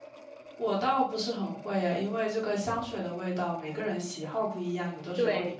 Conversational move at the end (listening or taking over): listening